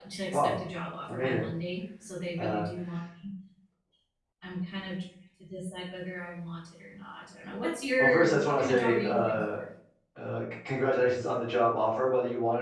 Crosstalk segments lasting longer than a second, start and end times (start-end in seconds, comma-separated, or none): 8.0-9.6